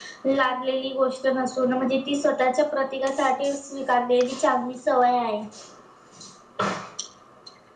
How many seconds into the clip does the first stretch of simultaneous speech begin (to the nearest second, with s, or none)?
none